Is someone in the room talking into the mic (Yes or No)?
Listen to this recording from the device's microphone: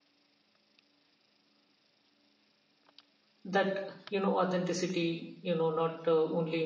Yes